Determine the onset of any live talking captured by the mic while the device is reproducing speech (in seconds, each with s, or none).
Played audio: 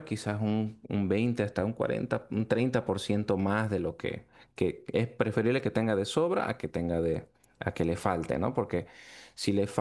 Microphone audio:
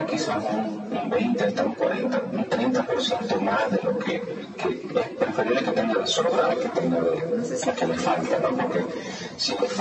7.3 s